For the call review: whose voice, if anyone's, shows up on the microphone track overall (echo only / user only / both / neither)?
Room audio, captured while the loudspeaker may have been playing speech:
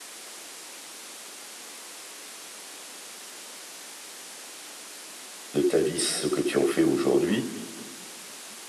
user only